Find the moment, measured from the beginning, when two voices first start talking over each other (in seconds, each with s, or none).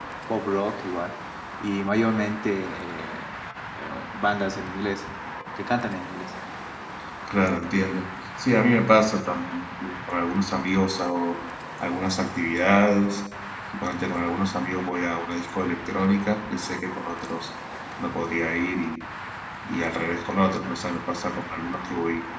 none